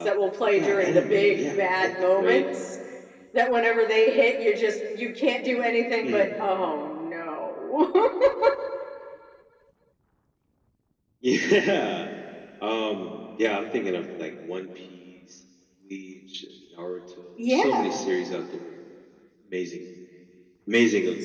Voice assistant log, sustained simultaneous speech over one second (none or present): present